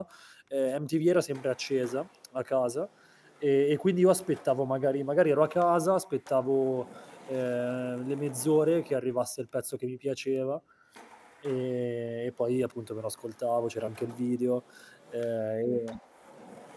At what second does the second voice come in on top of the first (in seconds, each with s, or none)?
none